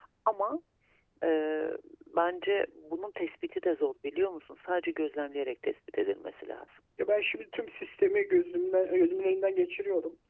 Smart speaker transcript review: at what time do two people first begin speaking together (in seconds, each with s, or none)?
none